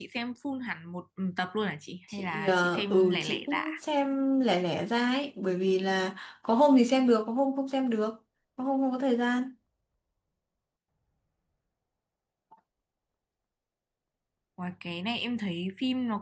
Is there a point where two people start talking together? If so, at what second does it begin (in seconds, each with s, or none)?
2.2 s